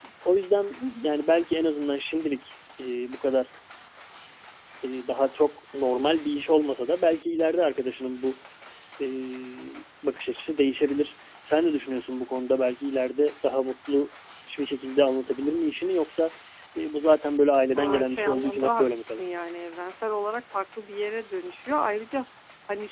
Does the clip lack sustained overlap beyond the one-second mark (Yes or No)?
No